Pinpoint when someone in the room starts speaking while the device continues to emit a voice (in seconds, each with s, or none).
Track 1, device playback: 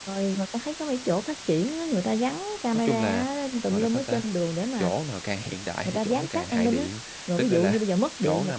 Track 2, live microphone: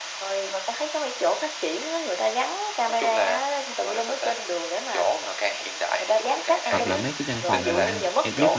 6.7 s